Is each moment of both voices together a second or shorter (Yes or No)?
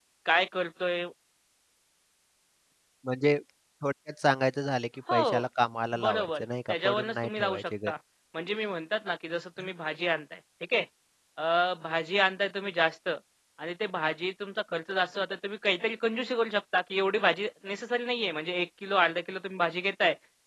No